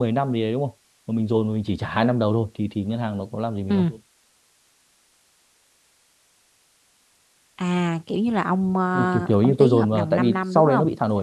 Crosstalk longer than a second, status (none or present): present